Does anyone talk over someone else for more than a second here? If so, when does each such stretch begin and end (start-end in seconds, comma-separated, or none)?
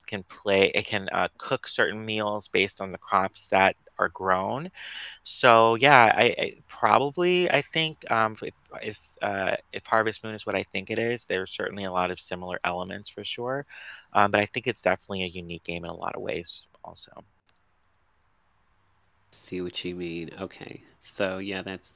none